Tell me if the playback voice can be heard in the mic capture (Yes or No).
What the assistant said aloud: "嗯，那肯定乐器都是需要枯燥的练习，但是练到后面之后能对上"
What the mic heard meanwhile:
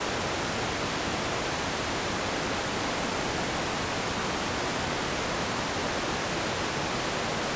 No